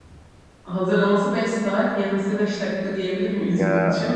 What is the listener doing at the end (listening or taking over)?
taking over